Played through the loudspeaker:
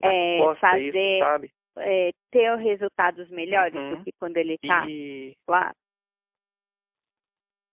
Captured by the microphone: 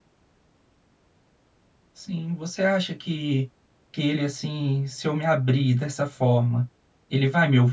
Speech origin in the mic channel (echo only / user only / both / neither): user only